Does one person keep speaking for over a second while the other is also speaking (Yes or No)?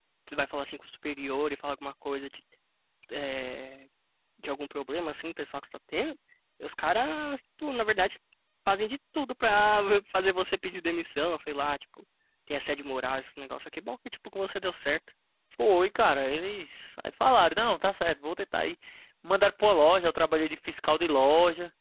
No